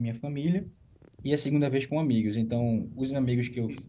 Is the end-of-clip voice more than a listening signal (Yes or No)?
No